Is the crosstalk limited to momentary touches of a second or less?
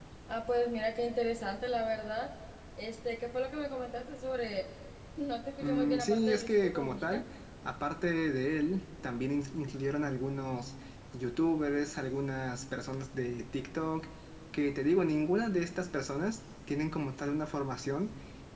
No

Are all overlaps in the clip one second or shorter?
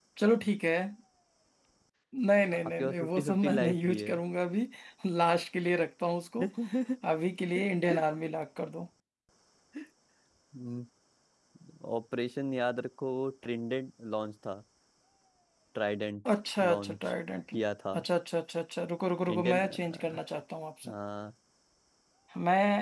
No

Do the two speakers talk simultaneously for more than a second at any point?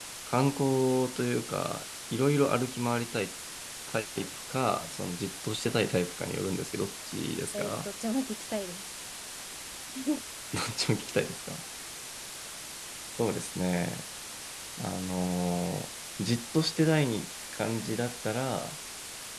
No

